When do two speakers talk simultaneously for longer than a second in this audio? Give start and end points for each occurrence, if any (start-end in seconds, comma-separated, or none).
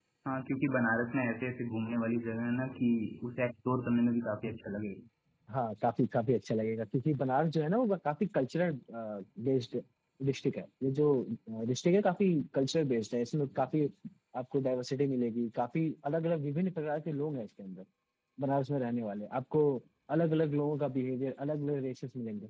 none